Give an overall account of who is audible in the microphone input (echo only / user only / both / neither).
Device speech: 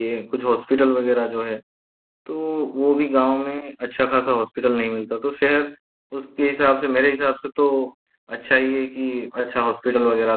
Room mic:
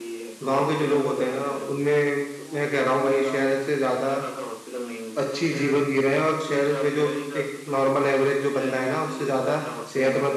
both